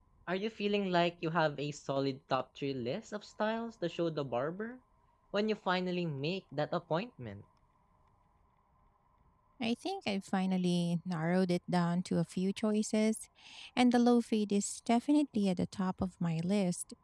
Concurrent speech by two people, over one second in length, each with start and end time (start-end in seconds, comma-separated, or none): none